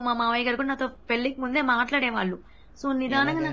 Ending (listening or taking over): listening